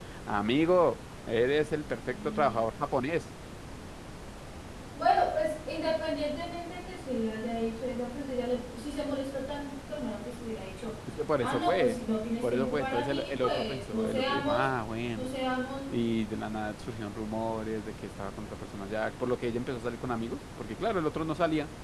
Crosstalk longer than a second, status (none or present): present